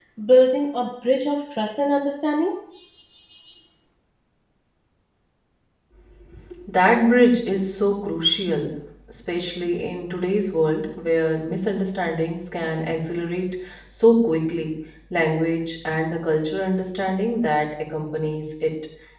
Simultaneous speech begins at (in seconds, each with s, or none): none